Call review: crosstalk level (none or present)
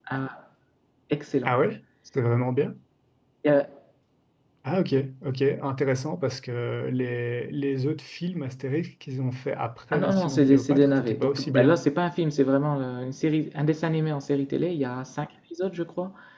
present